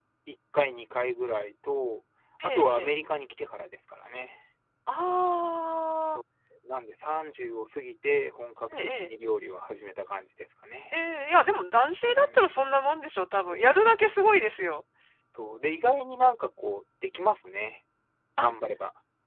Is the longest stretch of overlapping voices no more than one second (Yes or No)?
Yes